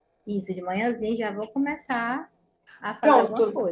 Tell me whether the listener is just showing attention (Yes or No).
No